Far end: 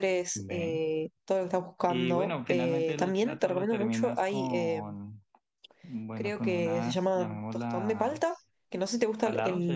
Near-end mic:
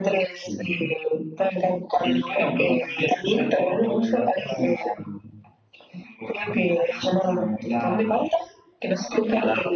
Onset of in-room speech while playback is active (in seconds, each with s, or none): none